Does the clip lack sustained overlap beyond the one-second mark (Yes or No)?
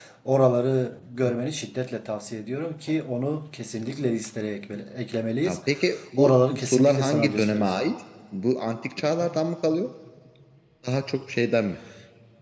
No